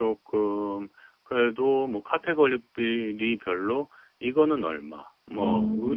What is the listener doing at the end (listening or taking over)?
listening